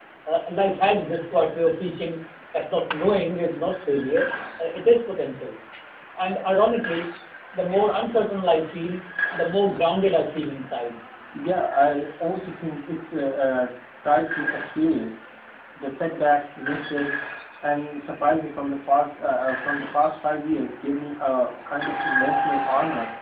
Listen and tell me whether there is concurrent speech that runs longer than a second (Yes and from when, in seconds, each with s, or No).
No